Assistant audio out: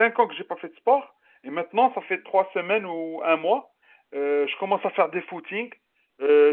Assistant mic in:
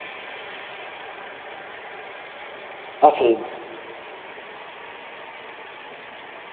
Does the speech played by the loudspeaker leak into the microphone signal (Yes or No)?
No